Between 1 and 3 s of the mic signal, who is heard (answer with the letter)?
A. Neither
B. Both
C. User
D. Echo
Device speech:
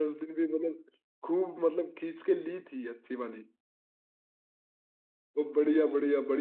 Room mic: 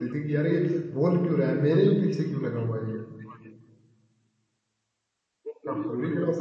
B